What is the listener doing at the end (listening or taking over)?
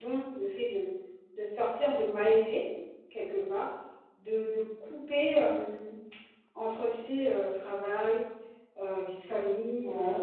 listening